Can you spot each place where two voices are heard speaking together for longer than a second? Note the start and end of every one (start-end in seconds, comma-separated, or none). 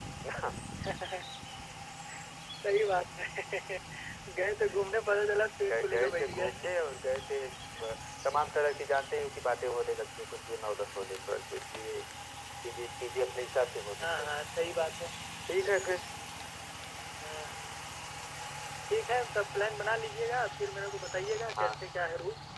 5.7-7.0